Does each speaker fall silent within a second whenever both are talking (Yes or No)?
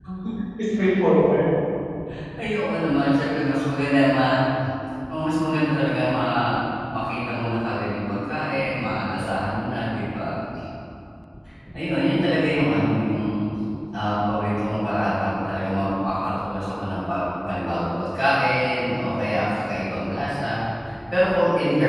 Yes